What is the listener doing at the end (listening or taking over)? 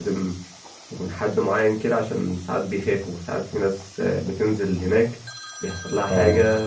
listening